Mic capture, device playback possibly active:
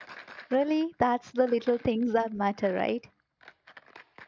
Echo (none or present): none